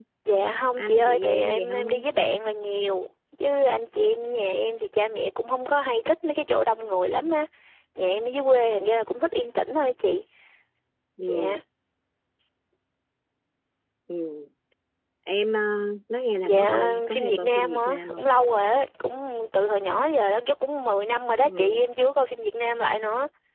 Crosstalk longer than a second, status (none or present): present